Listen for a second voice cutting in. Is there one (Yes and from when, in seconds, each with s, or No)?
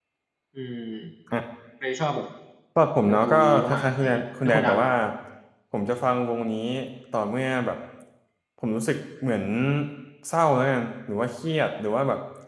Yes, from 3.0 s